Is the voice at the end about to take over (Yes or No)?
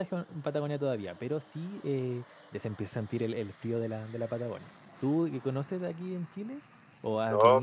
Yes